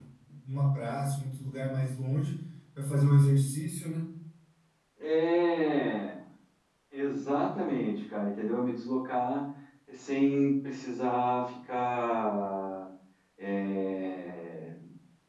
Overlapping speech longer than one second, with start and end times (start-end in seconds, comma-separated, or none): none